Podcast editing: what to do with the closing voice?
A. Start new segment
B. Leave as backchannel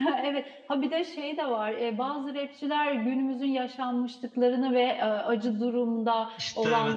B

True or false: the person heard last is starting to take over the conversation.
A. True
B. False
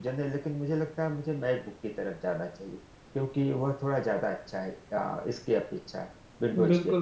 A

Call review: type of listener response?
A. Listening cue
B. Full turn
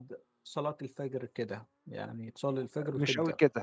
B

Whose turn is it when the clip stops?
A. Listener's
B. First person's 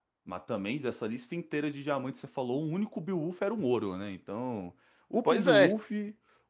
B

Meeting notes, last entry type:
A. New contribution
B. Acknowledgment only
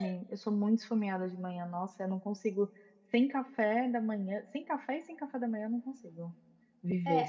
A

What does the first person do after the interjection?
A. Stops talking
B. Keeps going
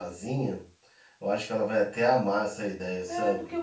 A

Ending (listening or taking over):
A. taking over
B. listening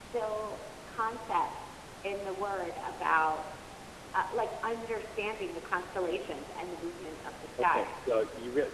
A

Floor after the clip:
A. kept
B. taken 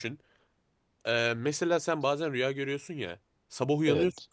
A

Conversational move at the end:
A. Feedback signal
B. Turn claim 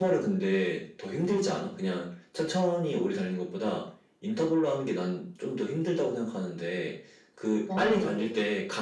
A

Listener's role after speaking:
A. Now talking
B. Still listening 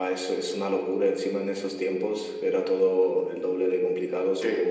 A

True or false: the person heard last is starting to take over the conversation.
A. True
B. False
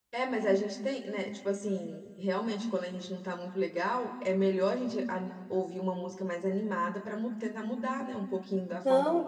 A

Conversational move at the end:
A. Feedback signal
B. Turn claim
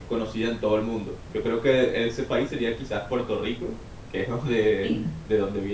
A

